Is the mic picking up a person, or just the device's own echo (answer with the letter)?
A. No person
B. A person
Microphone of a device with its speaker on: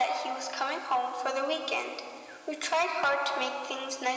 A